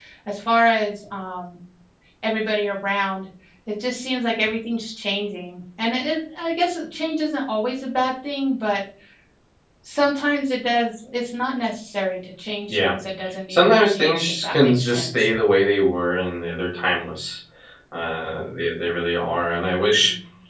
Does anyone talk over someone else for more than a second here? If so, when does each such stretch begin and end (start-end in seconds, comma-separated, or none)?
13.5-15.3